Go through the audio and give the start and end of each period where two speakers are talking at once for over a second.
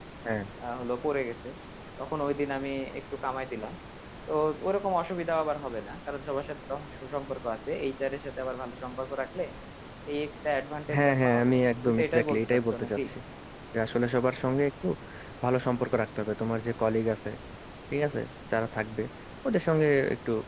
10.9-13.0

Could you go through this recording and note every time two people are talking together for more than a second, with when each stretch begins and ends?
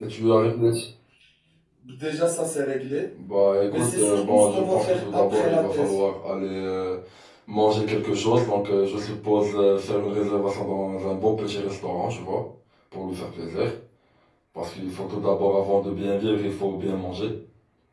3.7-6.0

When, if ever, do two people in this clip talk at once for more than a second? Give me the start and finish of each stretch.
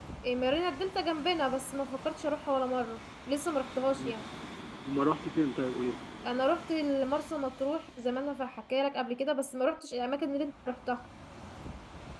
none

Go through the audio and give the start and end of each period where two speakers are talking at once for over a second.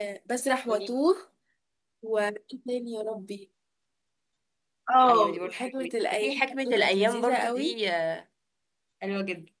5.1-7.7

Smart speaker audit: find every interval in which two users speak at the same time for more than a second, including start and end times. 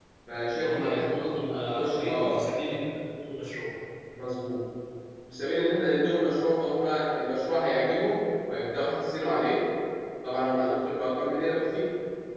0.6-2.5

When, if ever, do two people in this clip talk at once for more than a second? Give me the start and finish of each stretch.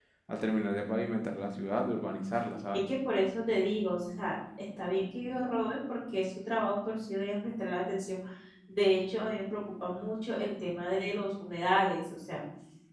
none

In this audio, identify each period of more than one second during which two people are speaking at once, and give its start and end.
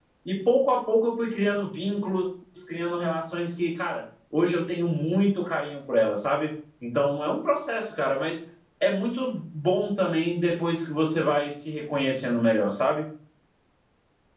none

